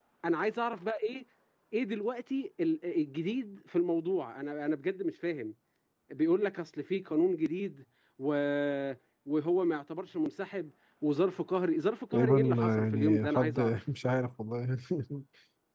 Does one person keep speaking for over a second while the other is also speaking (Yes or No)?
Yes